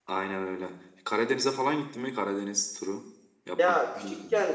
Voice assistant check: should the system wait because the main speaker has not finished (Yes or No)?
No